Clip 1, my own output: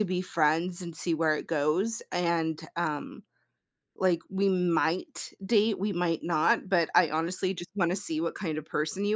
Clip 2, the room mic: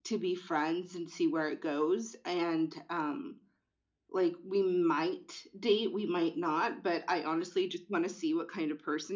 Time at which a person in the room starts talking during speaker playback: none

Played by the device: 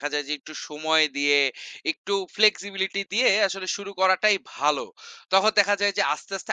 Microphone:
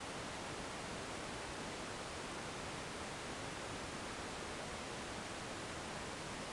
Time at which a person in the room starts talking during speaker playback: none

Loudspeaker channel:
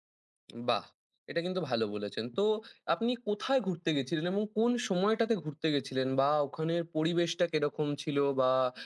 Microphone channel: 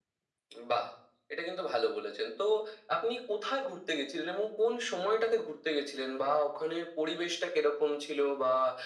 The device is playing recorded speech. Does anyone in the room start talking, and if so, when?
none

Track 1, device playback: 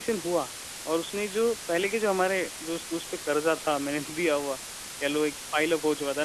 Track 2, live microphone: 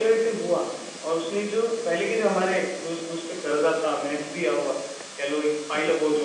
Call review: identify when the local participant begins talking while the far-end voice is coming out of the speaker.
none

